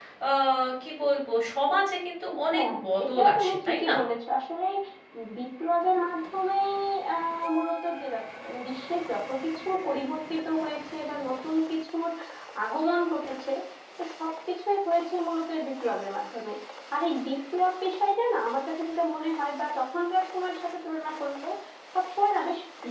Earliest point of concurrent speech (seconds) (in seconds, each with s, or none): 2.5 s